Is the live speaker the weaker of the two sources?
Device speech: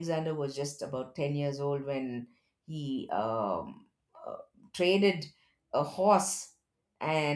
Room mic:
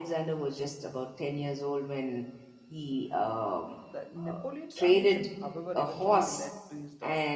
Yes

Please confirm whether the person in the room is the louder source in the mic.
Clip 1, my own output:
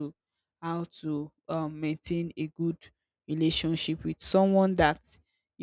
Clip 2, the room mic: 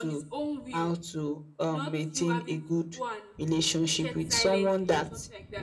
No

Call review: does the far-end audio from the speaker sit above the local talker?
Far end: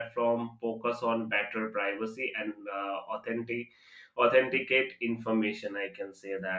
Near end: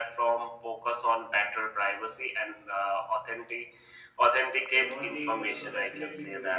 Yes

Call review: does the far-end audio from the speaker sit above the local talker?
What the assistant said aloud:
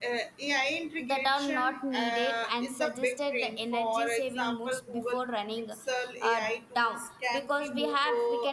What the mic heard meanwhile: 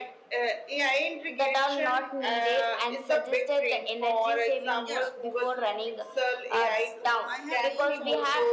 Yes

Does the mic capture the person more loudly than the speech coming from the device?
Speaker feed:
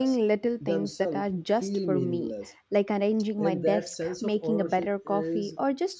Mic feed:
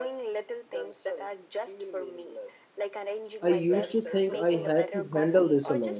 Yes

